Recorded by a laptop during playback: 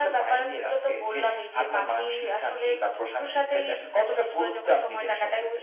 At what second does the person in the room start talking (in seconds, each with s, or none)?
none